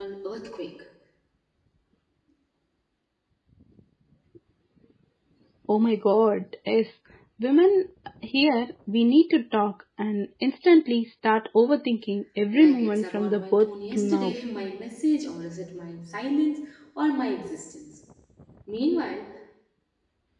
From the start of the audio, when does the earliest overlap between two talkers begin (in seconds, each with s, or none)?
12.5 s